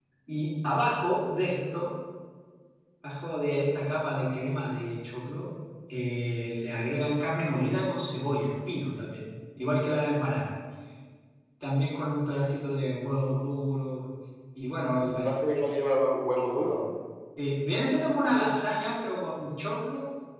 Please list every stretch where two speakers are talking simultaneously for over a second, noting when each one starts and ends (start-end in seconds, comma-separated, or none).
none